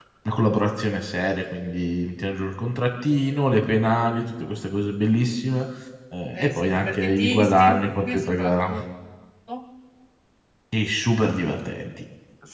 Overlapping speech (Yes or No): Yes